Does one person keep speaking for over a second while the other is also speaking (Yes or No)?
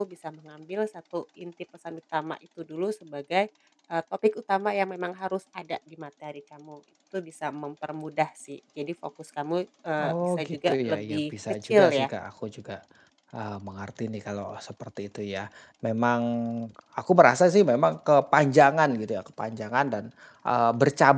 Yes